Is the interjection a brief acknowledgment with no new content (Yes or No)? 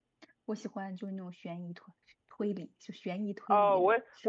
No